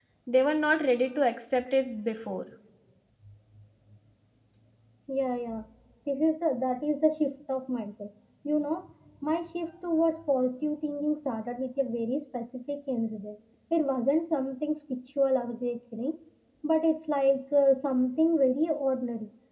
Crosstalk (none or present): none